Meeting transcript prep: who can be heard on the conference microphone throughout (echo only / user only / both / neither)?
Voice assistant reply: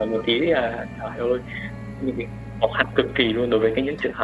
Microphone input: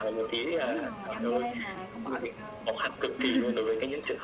both